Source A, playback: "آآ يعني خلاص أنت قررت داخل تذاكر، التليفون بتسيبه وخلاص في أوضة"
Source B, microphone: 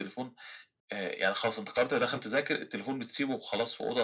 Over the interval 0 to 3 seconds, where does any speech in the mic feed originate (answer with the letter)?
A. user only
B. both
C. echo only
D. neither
C